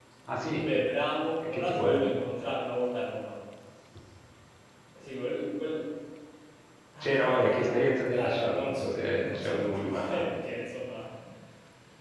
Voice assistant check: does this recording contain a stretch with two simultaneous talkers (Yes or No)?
Yes